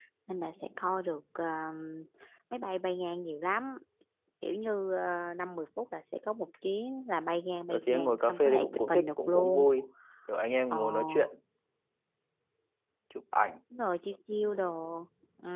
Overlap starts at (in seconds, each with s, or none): 7.7 s